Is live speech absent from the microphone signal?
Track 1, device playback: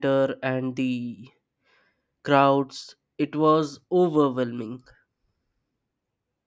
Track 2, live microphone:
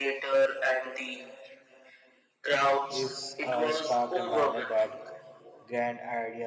No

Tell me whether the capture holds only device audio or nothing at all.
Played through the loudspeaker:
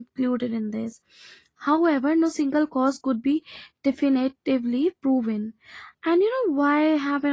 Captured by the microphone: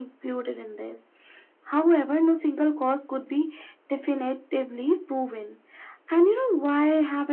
Yes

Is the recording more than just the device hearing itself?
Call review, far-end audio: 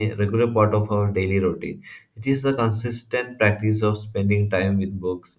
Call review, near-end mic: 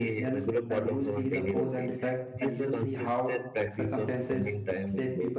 Yes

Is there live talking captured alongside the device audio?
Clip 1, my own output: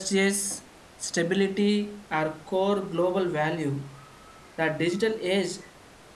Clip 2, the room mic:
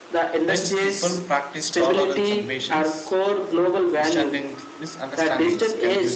Yes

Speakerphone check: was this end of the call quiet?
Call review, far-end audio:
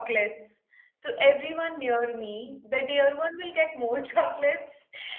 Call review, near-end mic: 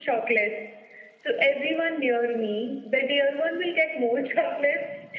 Yes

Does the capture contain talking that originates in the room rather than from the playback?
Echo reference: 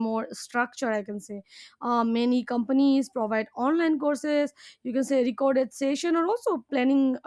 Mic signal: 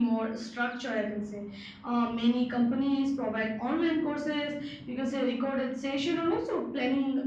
No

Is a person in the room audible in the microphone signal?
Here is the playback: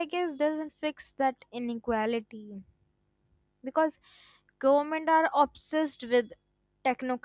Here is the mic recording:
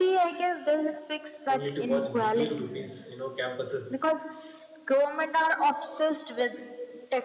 Yes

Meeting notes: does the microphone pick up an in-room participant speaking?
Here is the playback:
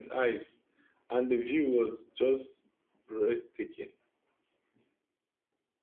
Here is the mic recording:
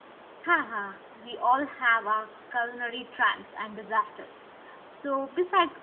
Yes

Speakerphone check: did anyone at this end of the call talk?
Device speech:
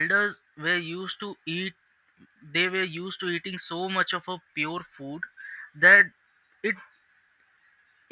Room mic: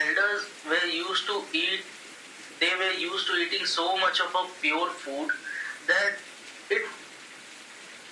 No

